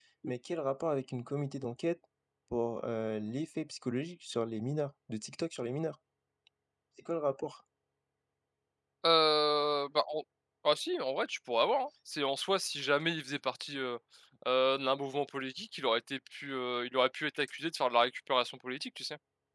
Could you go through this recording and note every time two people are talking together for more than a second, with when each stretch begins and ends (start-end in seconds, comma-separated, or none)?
none